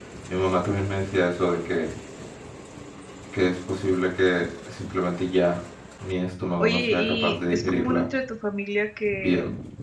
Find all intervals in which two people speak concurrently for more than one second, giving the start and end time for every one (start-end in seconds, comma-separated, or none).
6.6-8.1